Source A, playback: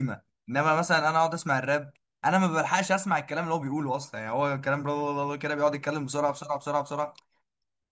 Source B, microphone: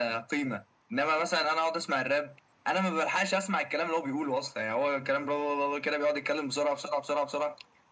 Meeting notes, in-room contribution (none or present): none